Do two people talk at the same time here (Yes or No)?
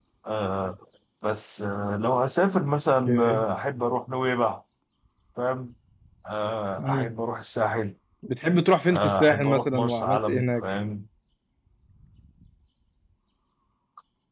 Yes